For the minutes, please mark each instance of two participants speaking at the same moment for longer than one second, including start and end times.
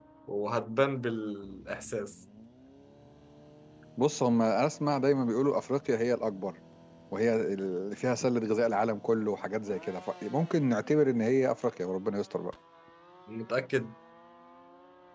none

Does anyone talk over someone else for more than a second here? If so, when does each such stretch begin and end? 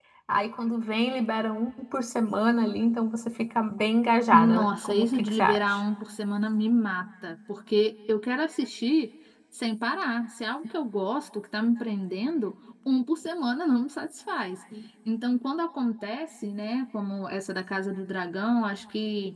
4.3-5.6

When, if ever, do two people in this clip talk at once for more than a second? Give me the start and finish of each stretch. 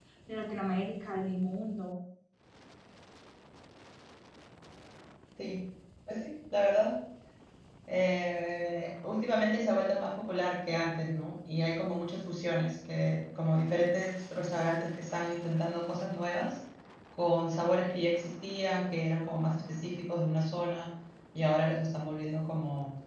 none

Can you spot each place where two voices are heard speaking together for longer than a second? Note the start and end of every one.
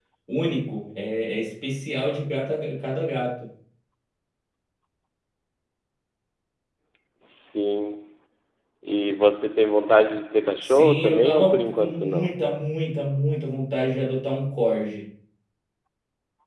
10.6-12.4

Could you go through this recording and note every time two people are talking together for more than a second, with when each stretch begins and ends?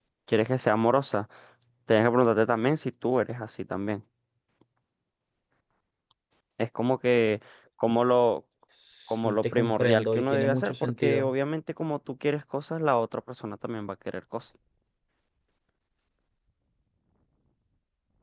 9.1-11.3

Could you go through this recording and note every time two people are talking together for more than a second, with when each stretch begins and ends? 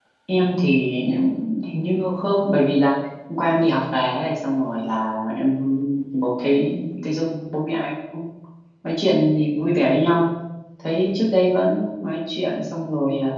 none

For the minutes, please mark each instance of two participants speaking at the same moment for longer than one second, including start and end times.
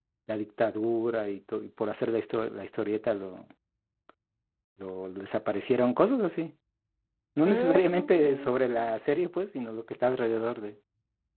7.5-8.9

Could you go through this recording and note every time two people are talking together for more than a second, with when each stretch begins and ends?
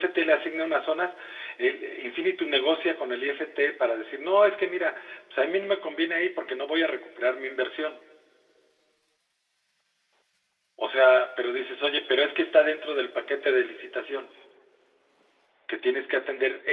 none

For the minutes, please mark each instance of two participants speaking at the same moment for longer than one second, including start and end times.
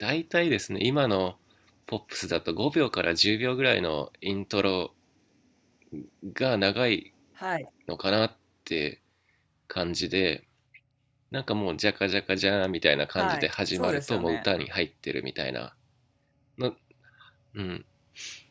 13.2-14.4

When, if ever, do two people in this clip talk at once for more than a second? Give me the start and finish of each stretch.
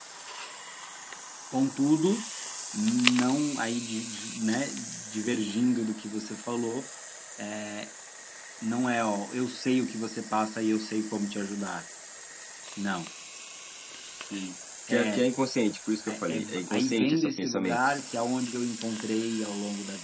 16.1-17.9

